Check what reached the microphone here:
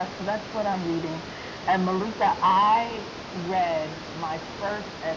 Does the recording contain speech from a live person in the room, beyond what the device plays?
No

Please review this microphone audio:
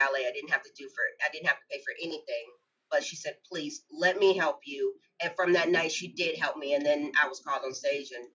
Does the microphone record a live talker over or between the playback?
Yes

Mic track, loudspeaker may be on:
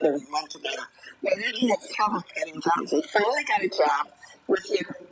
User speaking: No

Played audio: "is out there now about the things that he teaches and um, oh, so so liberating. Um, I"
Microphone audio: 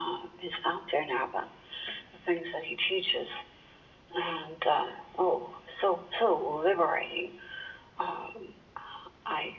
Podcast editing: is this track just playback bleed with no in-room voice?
Yes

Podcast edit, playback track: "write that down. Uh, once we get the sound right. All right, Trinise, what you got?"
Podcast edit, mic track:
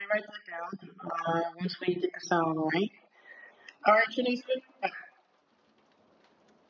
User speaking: No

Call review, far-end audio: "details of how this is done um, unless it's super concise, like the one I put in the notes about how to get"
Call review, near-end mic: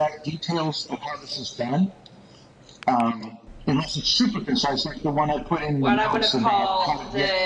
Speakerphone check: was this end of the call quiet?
No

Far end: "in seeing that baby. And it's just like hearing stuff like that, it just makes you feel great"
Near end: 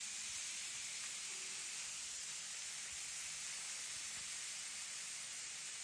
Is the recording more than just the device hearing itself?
No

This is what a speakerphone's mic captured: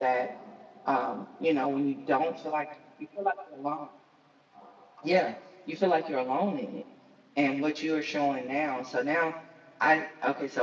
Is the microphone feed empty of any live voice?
No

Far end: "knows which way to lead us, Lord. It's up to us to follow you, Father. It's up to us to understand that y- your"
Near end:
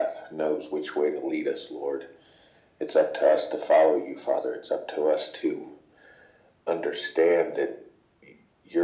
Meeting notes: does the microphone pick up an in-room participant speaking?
No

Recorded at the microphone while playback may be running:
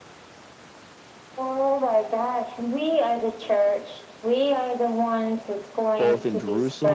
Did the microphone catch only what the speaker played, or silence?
No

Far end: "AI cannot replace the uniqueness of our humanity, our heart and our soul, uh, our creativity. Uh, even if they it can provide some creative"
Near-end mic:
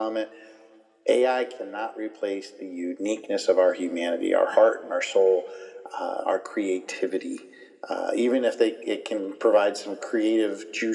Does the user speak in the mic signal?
No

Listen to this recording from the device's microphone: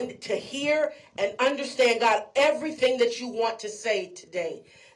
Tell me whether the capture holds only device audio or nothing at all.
No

